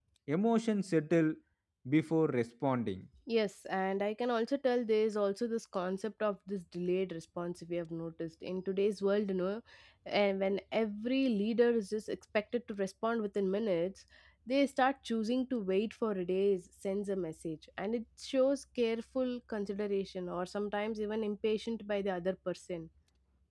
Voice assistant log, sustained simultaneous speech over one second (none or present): none